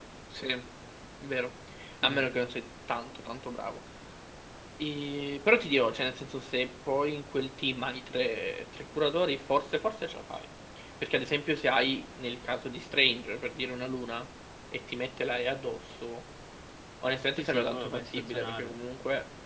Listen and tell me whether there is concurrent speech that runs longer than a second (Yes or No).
Yes